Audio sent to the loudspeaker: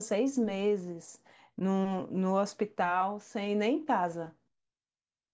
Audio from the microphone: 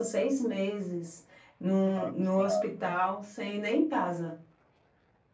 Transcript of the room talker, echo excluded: Tá acostumado, né?

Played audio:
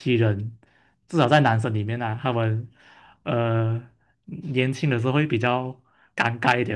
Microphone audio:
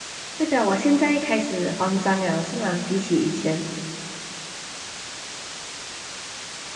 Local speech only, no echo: 代表我现在开始慌张了，是吗？比起以前，

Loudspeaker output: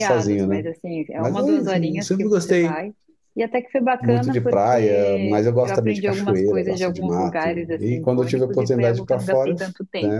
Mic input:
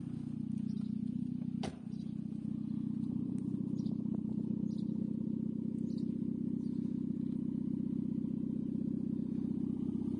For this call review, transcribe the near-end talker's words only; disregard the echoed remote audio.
none

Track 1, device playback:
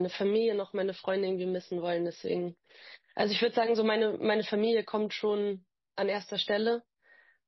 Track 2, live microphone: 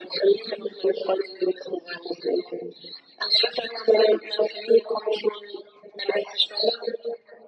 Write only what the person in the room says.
none

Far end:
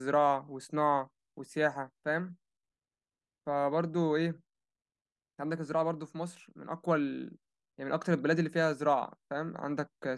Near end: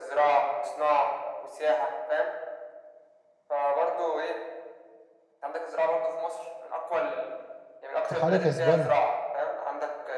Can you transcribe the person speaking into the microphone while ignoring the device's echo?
في حاجة كسبانة

